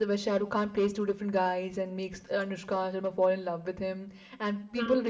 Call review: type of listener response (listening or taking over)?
listening